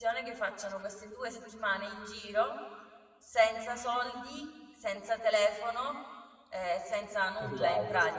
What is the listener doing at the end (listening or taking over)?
listening